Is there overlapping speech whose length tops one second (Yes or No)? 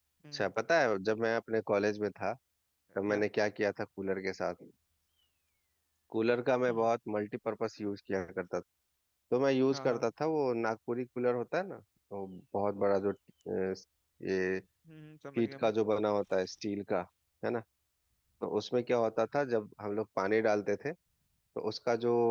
No